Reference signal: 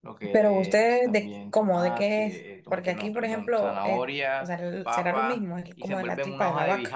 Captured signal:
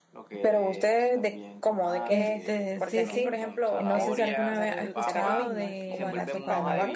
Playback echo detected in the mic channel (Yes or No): Yes